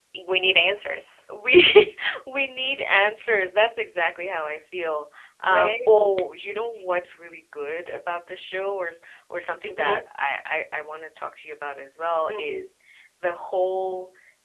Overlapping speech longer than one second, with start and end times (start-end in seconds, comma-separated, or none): none